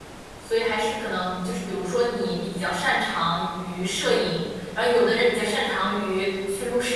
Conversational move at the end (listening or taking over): listening